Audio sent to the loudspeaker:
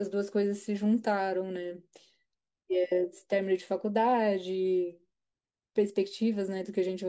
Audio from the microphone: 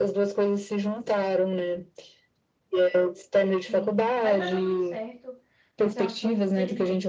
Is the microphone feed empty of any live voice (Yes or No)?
No